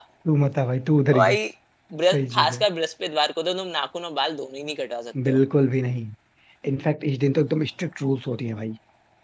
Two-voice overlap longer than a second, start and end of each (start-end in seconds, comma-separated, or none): none